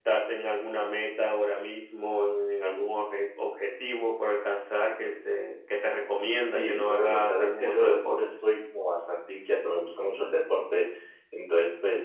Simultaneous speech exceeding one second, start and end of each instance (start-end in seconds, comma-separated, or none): 6.4-8.2